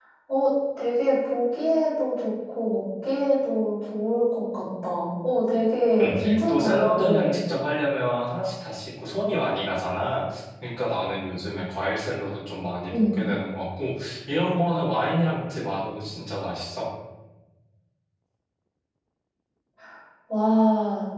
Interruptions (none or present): present